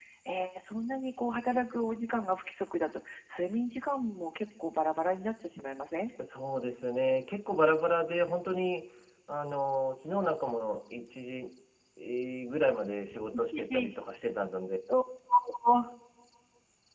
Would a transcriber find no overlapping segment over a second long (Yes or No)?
Yes